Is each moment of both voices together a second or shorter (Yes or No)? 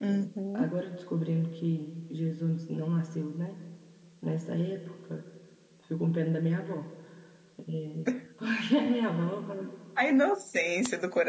Yes